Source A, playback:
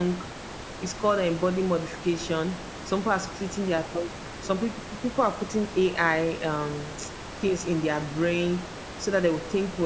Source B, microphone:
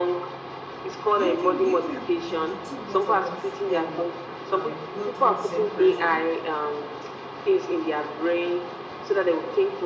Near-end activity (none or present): present